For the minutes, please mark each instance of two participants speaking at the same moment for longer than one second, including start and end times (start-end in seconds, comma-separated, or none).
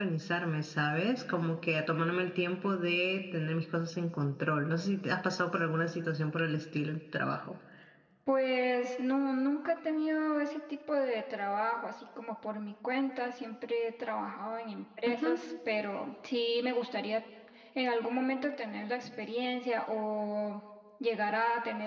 none